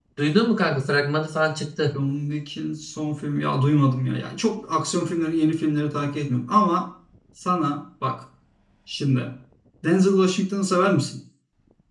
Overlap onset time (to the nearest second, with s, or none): none